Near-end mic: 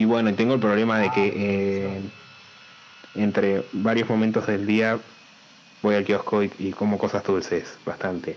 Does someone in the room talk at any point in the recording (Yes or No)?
Yes